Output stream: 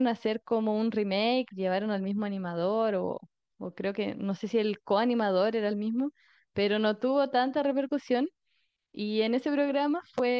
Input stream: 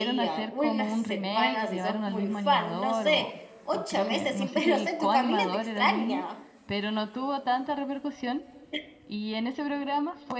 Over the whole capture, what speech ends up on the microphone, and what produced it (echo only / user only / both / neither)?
both